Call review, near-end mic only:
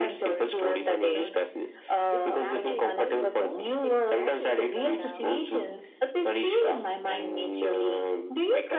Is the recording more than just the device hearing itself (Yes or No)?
Yes